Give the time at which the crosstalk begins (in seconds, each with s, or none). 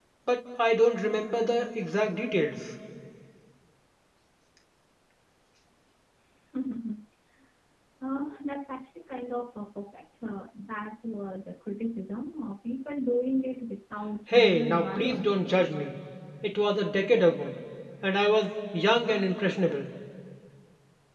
14.3 s